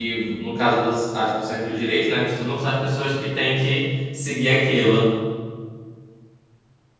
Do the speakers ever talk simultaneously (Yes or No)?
No